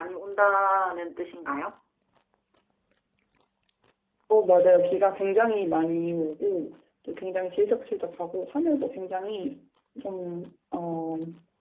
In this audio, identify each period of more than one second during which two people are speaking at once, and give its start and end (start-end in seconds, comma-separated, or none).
none